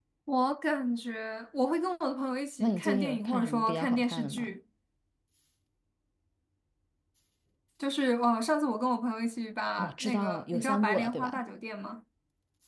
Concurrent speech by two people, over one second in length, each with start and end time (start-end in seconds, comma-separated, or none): 2.6-4.6, 9.8-11.4